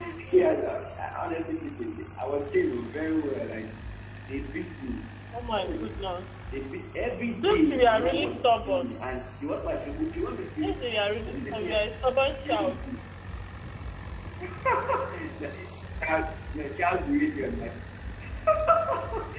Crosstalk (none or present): present